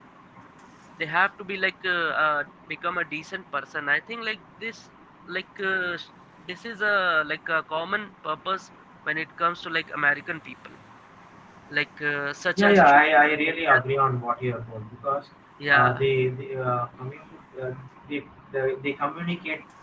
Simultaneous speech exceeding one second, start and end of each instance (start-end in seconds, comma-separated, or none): 12.6-13.8